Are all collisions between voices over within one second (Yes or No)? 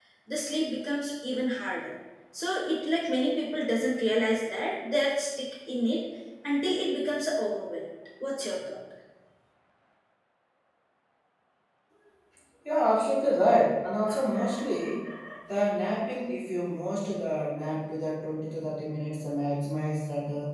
Yes